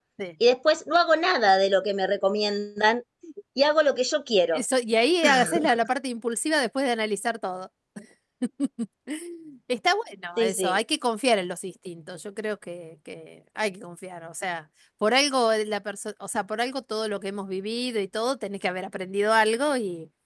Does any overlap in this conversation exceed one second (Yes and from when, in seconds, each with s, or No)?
No